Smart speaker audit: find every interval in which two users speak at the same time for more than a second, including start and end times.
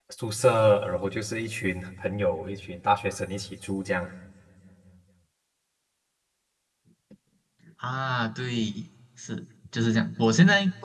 none

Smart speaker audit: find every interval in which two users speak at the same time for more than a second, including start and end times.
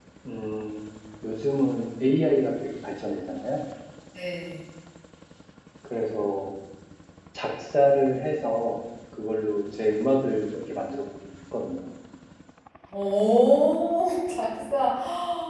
none

